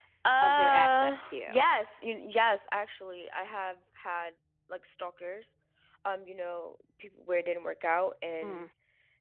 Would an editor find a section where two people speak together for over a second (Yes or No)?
Yes